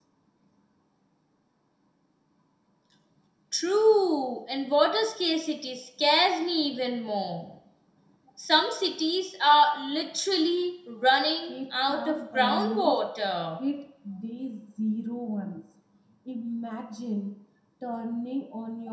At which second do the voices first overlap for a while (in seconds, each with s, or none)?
11.5 s